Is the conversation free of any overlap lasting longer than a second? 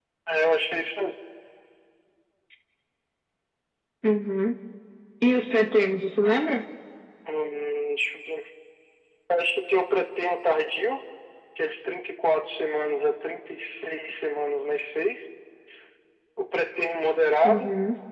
Yes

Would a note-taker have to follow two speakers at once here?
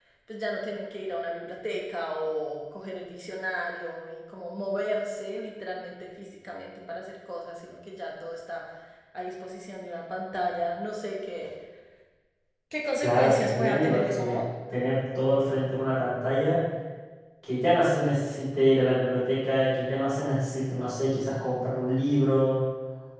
Yes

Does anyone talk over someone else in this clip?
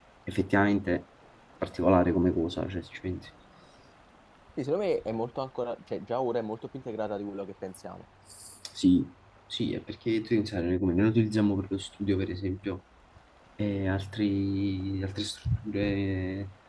No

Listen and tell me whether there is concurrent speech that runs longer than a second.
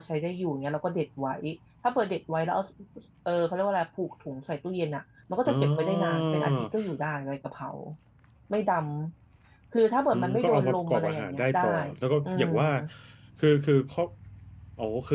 Yes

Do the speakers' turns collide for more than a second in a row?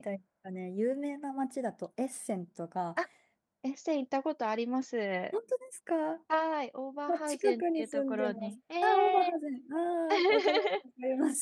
Yes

